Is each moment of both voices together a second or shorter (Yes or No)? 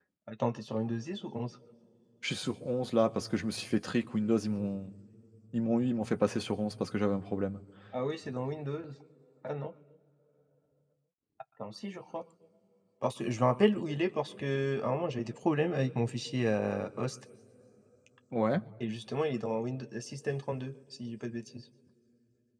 Yes